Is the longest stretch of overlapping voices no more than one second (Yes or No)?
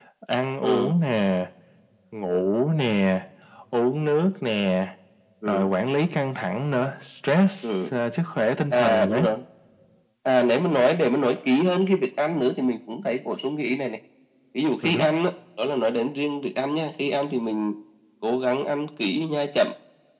Yes